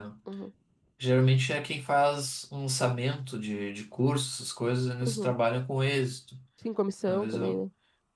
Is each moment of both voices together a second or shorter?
Yes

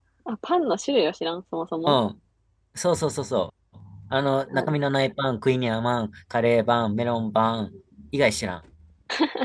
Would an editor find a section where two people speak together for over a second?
No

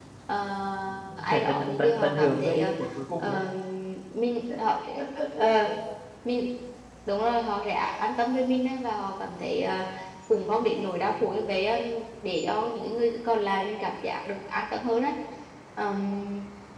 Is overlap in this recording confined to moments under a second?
No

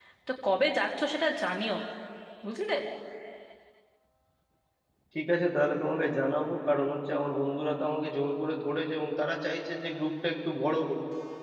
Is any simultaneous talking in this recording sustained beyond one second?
No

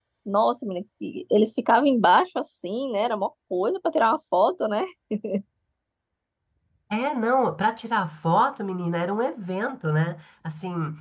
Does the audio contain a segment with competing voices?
No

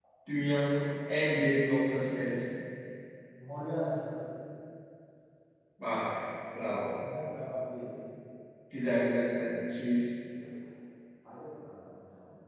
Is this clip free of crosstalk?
Yes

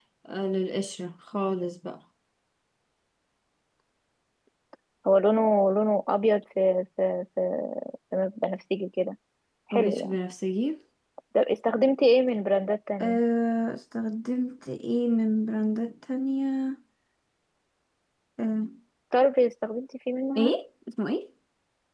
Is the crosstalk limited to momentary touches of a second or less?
Yes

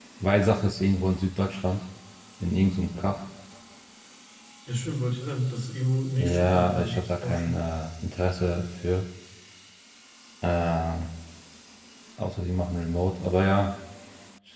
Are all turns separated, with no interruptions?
No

